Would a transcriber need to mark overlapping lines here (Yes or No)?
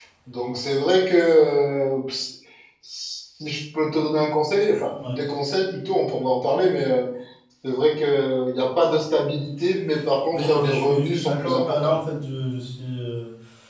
Yes